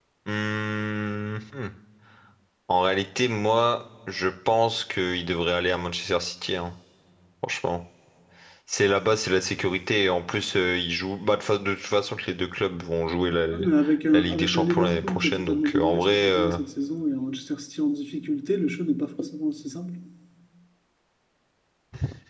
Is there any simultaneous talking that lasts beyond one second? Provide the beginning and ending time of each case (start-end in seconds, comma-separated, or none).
14.1-16.6